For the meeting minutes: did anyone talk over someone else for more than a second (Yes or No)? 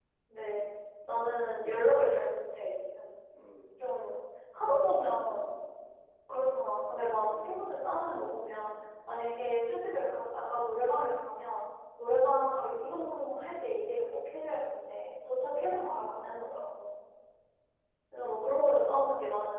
No